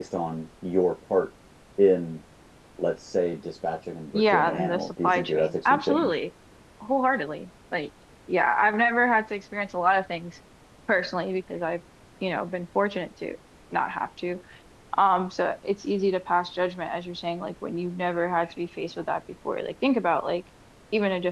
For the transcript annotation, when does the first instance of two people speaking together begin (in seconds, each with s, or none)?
4.1 s